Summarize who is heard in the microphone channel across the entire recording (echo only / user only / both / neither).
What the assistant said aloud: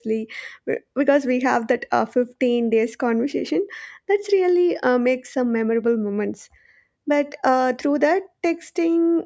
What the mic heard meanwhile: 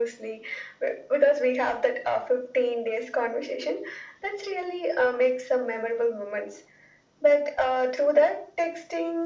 echo only